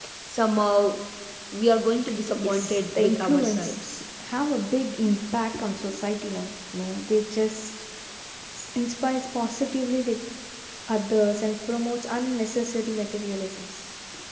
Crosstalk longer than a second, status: present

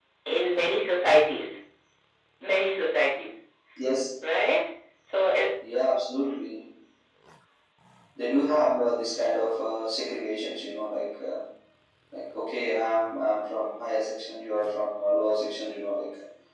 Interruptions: none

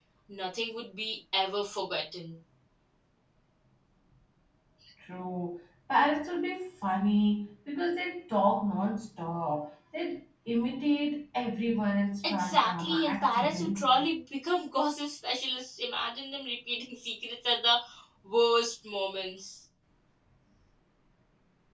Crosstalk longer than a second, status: present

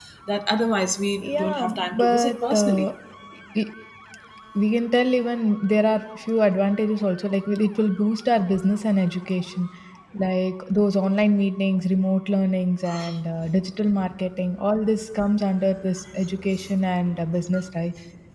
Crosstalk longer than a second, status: present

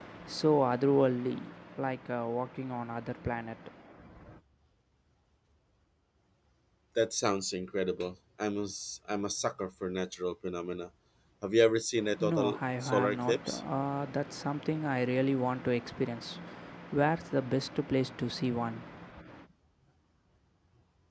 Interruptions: present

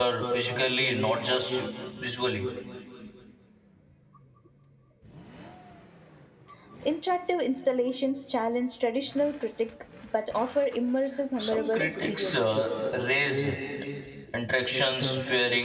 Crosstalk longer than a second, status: present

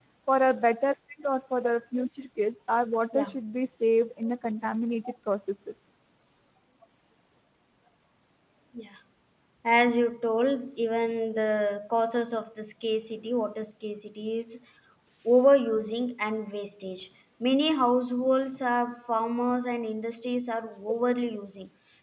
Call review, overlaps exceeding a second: none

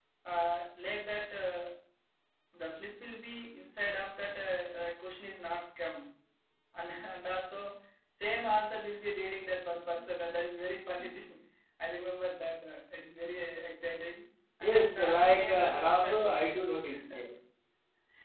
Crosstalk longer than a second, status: present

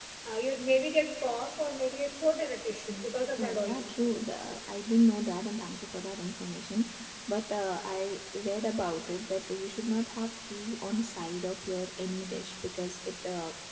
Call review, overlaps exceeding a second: none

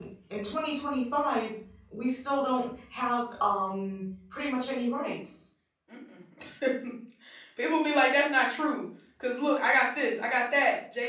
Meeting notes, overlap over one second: none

